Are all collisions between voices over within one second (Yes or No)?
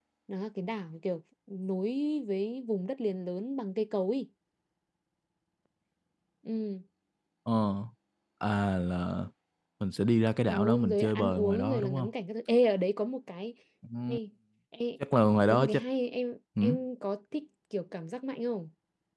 No